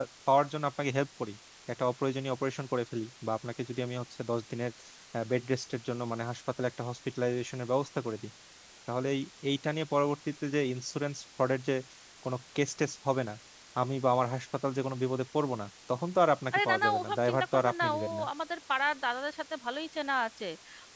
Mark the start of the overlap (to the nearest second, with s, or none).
17 s